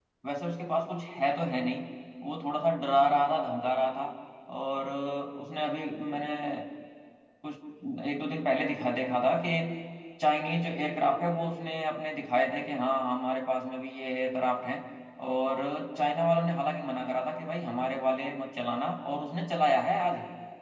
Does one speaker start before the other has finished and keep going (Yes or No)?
No